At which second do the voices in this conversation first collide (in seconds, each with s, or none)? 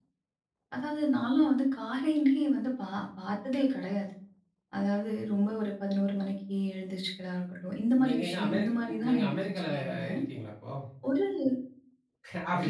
8.0 s